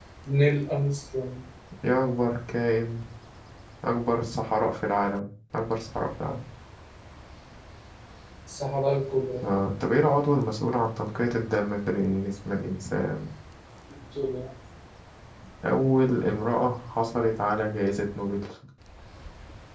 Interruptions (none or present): none